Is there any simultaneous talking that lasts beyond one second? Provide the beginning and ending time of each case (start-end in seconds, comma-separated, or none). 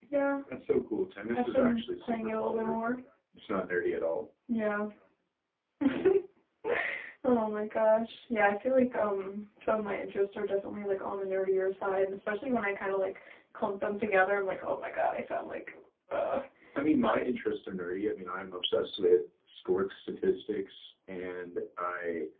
1.3-2.8